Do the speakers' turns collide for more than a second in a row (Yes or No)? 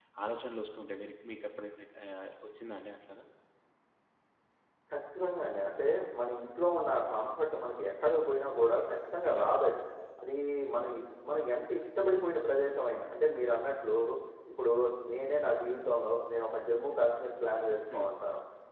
No